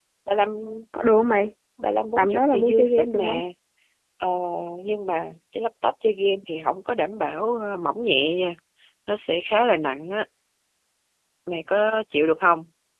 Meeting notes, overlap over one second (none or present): present